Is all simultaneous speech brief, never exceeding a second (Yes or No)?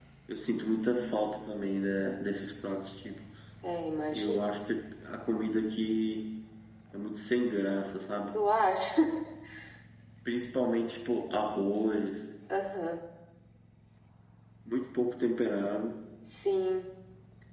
Yes